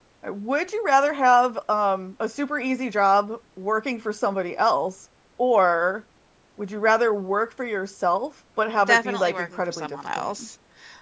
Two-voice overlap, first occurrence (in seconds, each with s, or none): 8.9 s